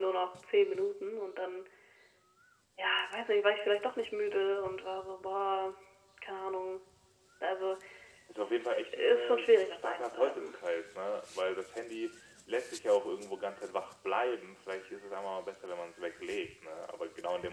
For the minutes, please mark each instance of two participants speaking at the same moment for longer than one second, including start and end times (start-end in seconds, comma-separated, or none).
9.0-10.6